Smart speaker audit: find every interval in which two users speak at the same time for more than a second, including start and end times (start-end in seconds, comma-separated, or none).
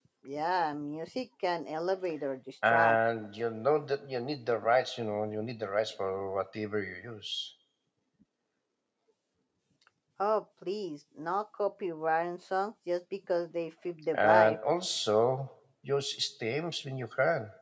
none